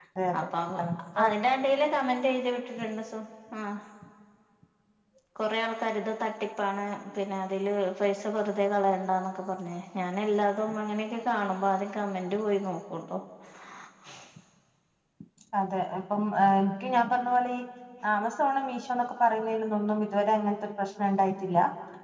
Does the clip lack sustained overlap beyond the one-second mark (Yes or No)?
Yes